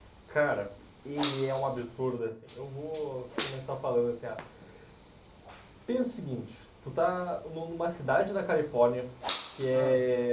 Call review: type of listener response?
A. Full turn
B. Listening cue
B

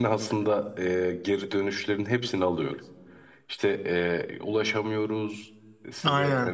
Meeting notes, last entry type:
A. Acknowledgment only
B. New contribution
A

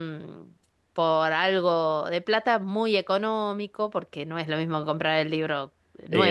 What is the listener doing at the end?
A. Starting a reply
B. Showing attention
A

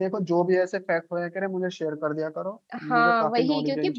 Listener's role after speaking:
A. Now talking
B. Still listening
A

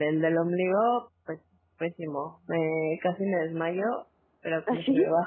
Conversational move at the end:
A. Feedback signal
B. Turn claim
A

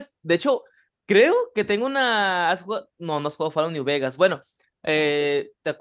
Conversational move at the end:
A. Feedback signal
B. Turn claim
A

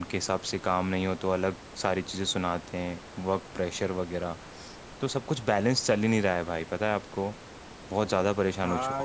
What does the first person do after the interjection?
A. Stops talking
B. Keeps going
A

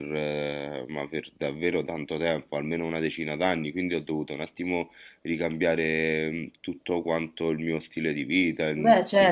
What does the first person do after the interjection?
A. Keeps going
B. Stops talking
B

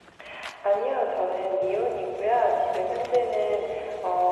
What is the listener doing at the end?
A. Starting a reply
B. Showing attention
B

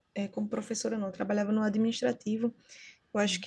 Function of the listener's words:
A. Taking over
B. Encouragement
B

